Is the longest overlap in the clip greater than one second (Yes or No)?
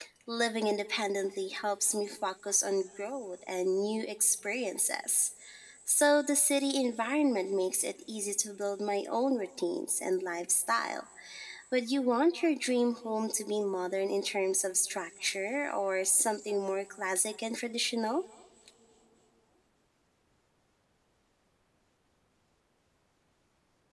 No